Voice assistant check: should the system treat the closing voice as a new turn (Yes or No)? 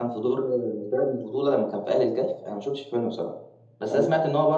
No